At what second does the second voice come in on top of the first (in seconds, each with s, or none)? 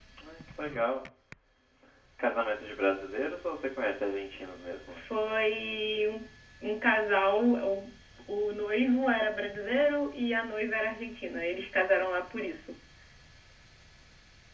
none